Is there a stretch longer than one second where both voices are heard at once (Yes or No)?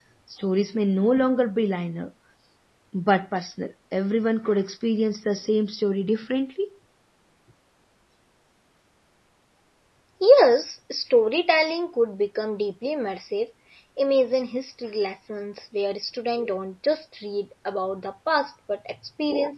No